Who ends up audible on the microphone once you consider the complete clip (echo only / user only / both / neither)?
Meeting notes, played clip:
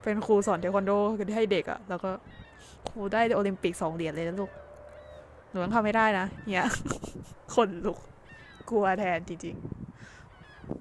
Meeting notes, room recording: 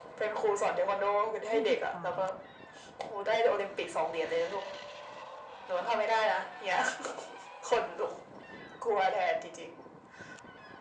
both